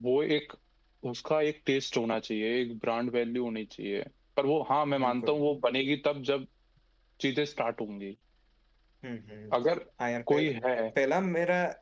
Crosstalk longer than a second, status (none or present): none